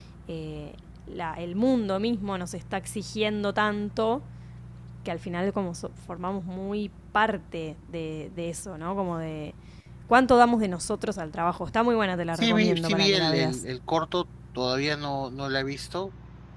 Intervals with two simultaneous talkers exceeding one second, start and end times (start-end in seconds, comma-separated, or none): 12.3-13.6